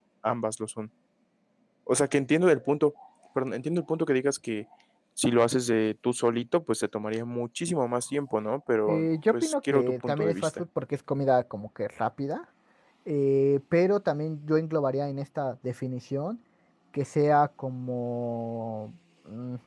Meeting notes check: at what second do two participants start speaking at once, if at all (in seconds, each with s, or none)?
8.9 s